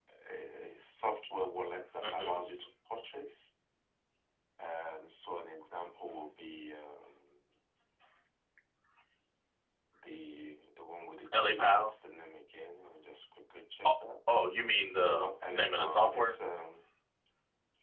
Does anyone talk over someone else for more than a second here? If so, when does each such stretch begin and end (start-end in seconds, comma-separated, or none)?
15.0-16.4